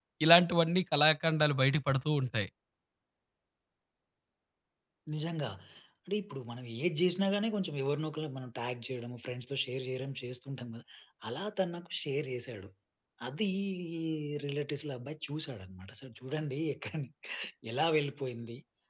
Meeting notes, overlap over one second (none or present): none